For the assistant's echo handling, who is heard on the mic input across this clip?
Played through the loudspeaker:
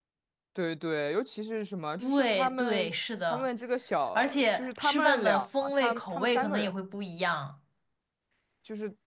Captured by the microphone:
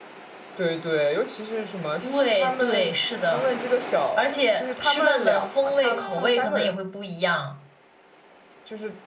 echo only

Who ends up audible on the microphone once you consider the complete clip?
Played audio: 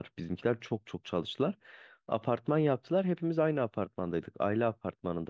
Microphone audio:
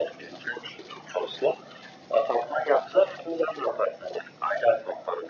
echo only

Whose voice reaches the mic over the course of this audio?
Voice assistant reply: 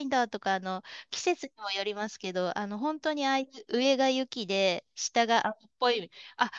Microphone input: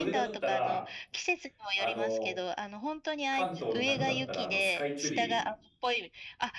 both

